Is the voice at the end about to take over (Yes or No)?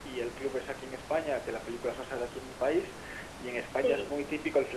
No